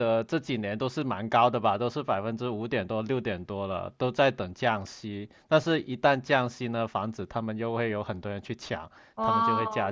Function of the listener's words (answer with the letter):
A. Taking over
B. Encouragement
A